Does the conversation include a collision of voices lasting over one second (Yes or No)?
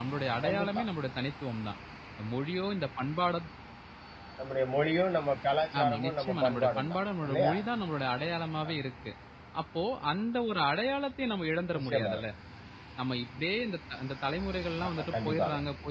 Yes